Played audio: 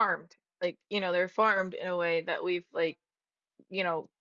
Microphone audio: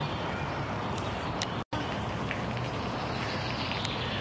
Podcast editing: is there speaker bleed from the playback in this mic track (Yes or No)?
No